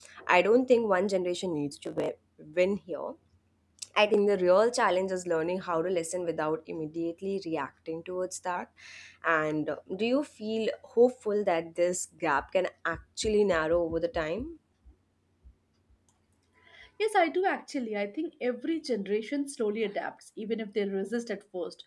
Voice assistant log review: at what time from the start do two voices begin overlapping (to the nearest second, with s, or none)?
none